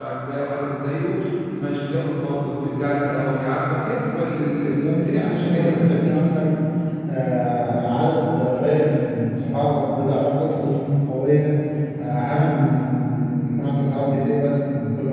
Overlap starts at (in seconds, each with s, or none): 4.6 s